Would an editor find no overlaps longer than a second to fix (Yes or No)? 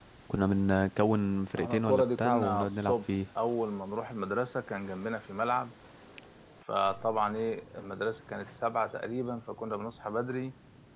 No